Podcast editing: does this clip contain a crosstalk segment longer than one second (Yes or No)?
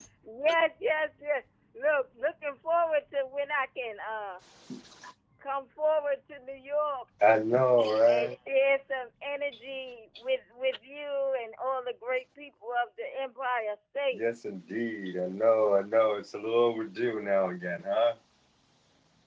No